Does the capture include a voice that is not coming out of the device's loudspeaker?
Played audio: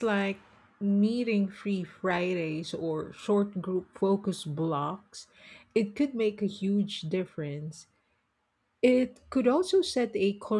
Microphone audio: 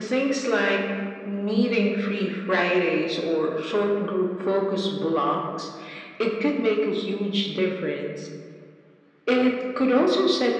No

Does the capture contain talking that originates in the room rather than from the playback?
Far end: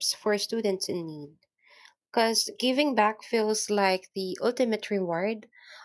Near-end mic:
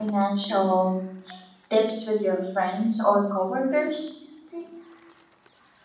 Yes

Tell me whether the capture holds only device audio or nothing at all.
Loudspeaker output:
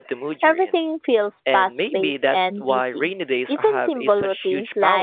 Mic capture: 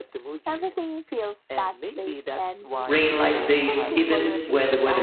No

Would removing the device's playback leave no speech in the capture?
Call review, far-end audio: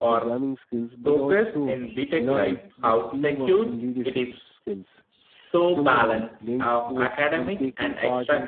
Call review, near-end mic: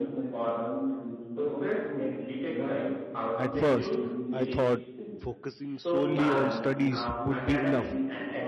No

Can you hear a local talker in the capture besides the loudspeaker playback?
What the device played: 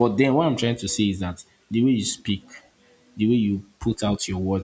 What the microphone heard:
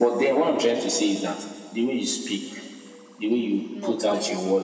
Yes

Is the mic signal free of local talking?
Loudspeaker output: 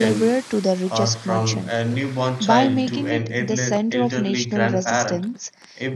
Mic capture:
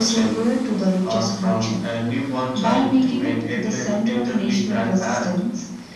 Yes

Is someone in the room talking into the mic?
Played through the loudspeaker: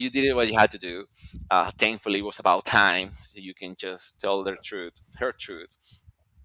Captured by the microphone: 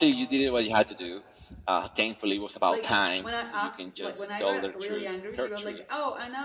Yes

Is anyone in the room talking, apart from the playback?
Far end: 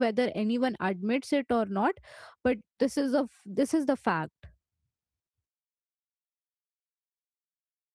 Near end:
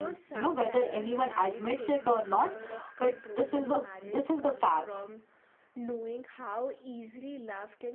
Yes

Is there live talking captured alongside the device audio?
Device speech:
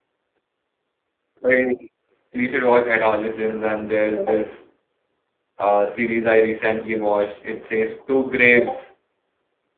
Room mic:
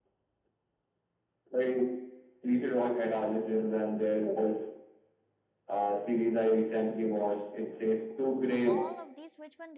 Yes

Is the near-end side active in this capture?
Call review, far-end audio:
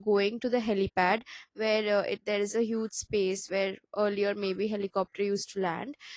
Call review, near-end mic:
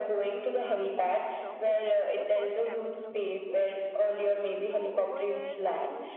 Yes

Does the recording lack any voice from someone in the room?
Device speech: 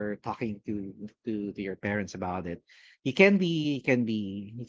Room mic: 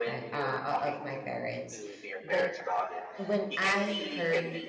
No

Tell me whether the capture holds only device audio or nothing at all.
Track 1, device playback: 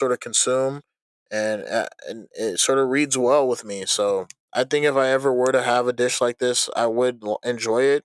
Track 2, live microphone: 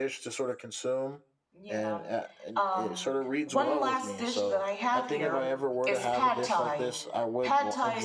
No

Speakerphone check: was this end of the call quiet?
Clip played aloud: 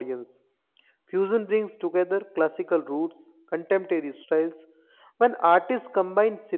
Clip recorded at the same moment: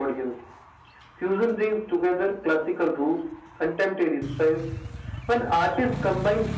Yes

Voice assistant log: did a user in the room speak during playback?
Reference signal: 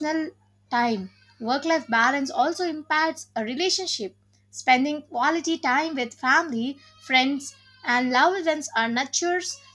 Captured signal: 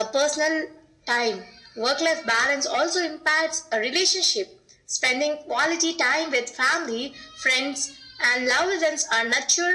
No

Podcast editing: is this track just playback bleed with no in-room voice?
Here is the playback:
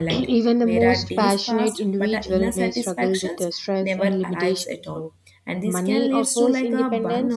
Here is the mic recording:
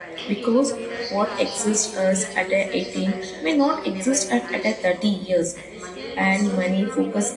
No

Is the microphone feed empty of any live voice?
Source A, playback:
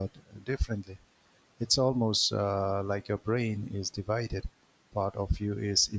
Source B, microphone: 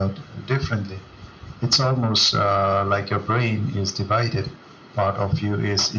Yes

